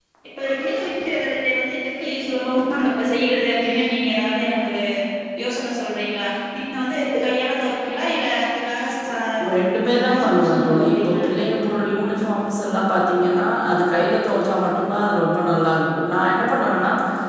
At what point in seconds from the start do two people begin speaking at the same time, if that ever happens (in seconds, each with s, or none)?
9.8 s